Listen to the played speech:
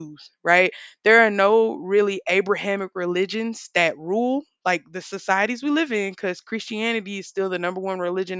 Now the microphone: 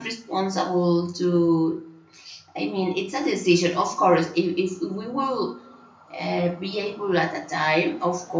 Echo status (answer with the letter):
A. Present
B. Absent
B